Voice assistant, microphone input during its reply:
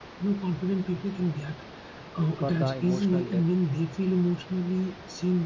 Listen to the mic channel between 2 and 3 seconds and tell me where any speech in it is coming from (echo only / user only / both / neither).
both